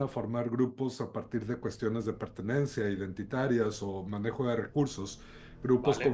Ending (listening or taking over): listening